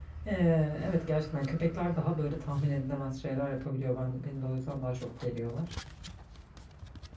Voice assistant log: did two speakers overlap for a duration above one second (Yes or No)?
No